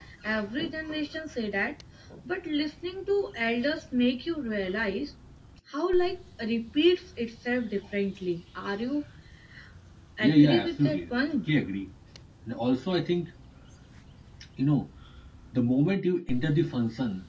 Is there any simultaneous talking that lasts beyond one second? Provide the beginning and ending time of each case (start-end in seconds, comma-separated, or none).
10.2-11.4